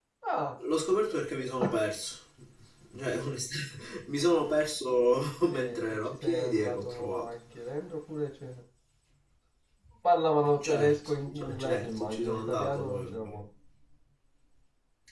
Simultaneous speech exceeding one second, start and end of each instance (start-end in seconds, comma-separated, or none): 5.5-7.3, 10.6-13.4